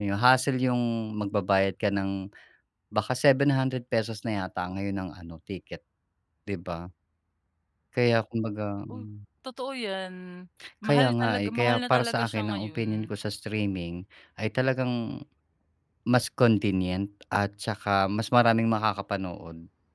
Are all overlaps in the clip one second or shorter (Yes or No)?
No